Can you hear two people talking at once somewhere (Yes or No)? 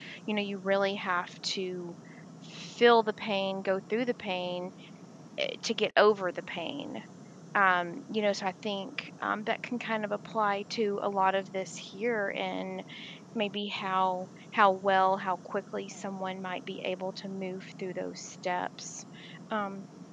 No